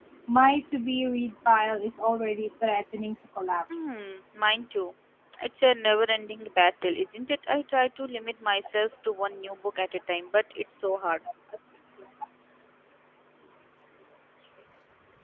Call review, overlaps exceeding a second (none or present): none